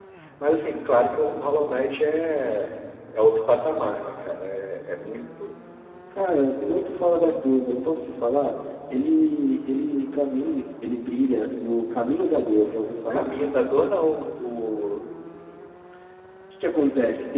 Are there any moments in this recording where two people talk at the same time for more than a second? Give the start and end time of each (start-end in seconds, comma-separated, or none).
none